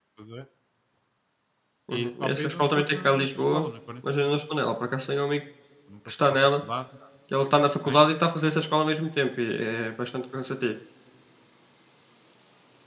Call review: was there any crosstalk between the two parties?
Yes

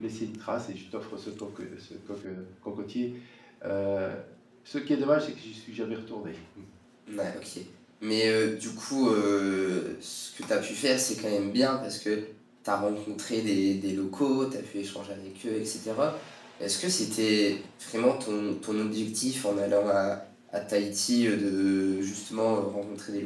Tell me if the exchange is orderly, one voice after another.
Yes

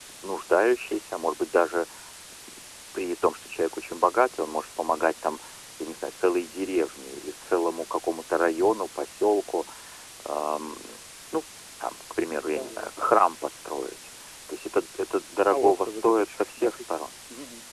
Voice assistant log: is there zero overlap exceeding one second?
No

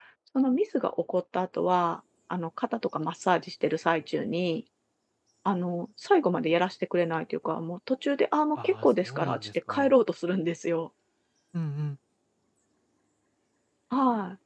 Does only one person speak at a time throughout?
No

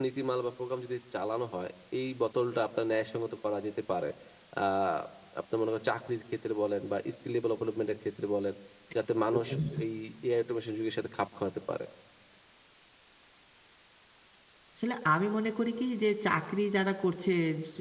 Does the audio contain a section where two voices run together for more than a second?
No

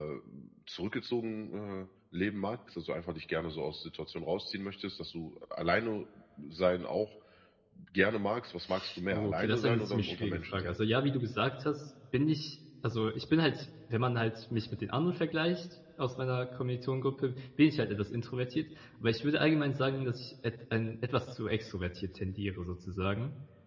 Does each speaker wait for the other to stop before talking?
No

